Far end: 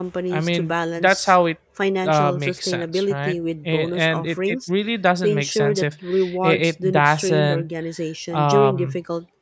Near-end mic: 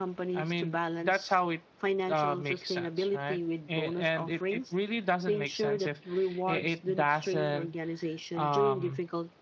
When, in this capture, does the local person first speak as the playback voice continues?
none

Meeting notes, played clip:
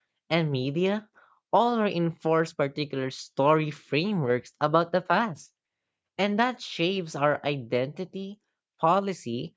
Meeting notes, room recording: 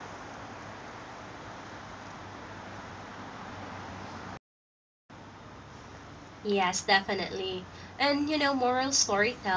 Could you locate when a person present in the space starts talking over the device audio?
6 s

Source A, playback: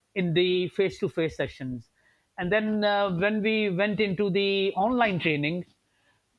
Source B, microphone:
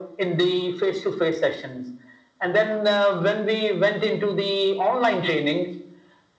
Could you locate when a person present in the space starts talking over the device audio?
none

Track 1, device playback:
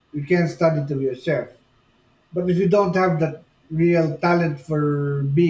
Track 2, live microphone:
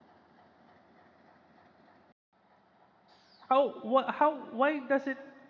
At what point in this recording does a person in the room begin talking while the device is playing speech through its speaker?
3 s

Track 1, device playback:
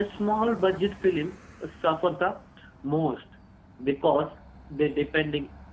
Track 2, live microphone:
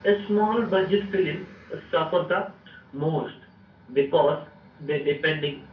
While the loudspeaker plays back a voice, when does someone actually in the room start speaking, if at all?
none

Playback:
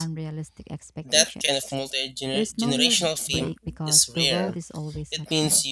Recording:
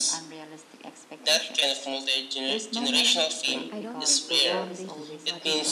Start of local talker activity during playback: 4 s

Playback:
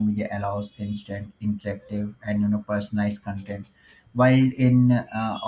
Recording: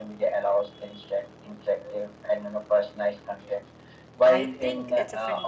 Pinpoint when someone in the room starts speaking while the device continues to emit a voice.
4 s

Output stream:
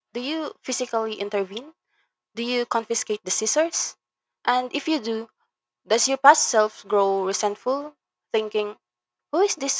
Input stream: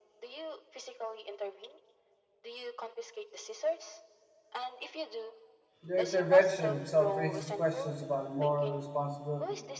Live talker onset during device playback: 6 s

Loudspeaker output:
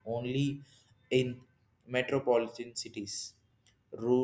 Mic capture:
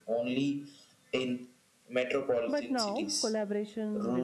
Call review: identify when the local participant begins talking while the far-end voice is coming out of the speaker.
2 s

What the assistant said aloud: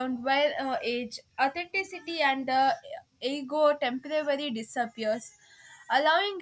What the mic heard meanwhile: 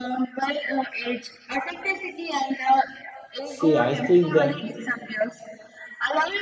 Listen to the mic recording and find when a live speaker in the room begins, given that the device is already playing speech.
3 s

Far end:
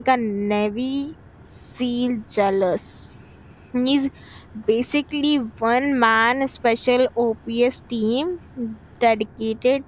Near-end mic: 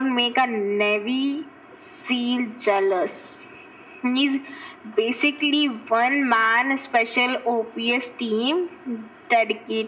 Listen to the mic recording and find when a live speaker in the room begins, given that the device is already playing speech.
none

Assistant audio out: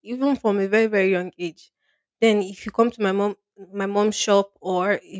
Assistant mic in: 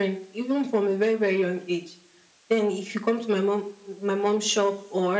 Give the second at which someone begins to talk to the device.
none

